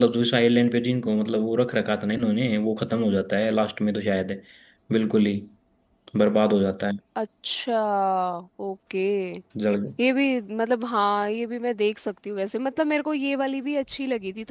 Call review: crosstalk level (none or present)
none